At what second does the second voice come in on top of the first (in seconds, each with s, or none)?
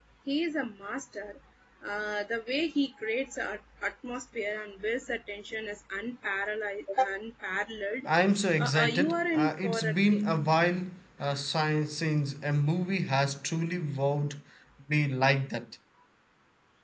8.6 s